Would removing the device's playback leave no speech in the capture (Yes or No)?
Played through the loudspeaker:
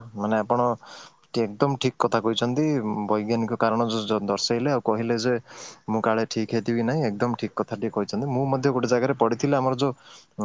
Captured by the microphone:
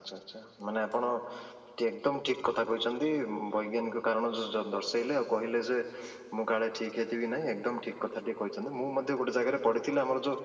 Yes